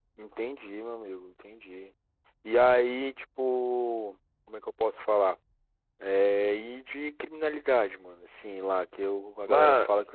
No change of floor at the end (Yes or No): Yes